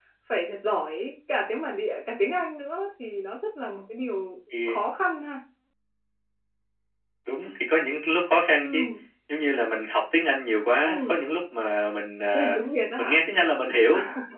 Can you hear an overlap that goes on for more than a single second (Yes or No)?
No